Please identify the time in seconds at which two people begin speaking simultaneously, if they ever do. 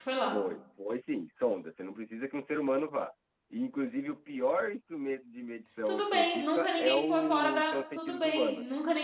5.9 s

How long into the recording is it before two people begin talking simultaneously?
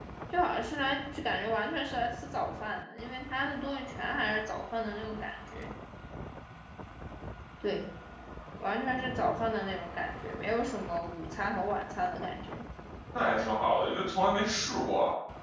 none

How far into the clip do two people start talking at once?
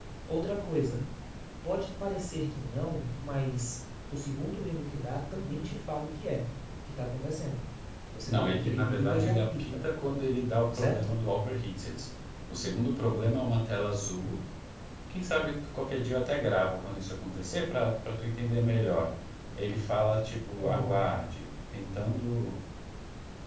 8.3 s

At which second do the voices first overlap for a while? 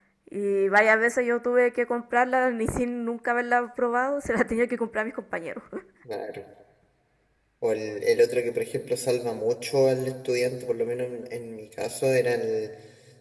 none

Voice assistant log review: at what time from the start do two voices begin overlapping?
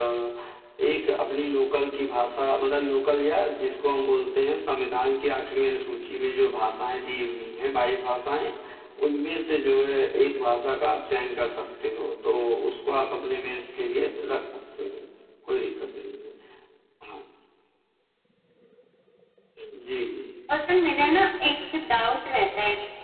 none

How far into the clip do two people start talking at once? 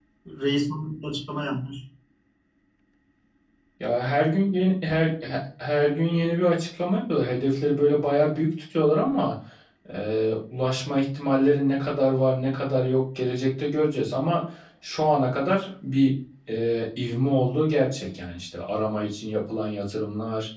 none

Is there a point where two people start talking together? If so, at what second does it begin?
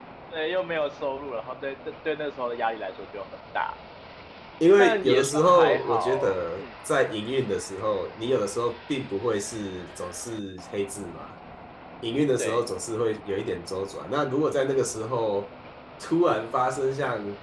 4.8 s

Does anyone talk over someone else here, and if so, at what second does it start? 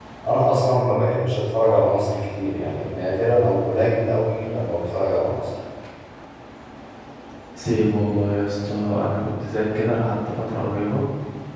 none

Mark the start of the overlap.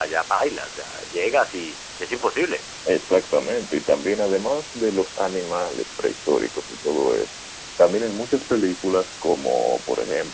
none

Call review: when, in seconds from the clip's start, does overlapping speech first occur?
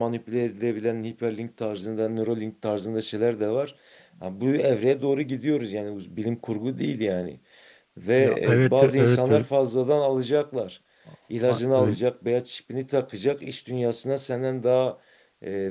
8.2 s

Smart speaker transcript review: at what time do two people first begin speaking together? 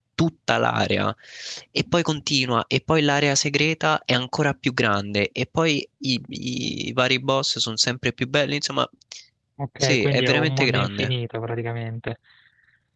9.8 s

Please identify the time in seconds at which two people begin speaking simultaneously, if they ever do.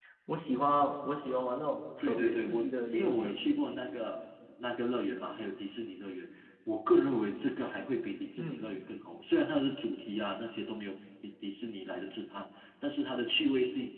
2.0 s

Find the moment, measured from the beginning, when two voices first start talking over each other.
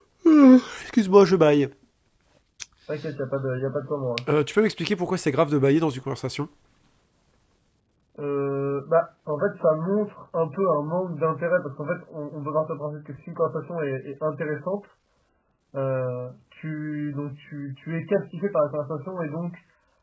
none

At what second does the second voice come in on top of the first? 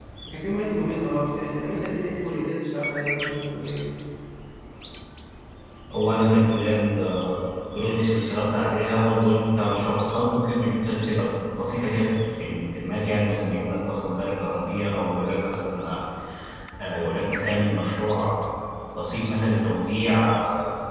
none

